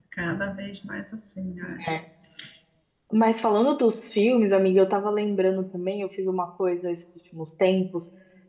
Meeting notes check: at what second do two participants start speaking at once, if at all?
none

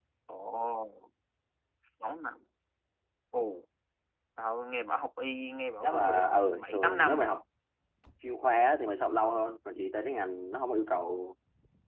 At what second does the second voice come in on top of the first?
6 s

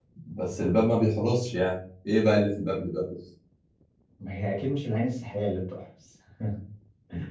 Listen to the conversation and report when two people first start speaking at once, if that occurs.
none

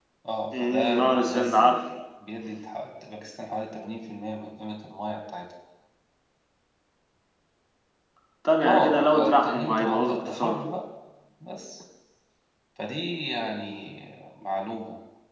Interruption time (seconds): 1 s

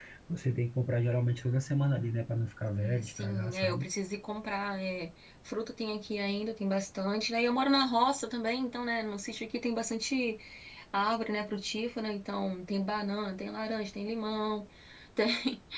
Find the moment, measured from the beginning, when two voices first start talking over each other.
3 s

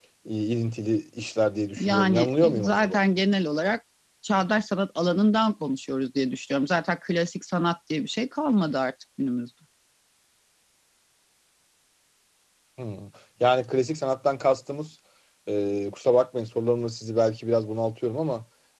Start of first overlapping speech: 2 s

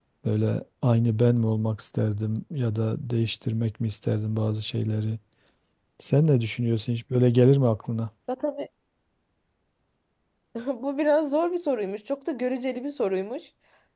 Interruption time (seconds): none

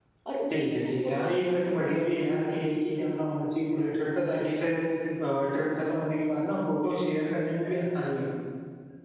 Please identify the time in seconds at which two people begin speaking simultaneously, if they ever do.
1 s

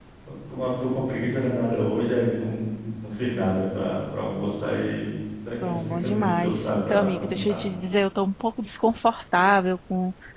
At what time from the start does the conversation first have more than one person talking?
6 s

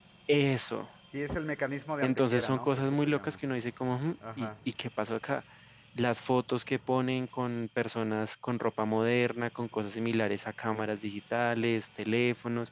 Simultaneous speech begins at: 2 s

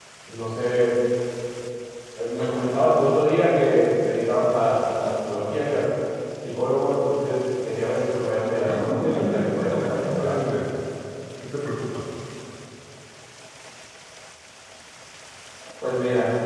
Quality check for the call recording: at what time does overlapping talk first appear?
9 s

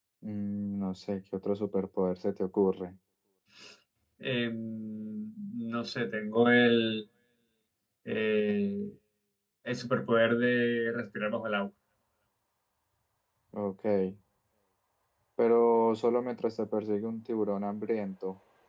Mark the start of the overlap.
none

